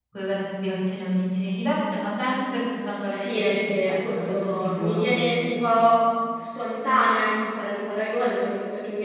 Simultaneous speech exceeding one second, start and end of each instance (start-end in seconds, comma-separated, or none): 3.1-5.0